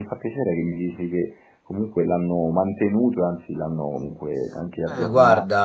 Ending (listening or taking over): taking over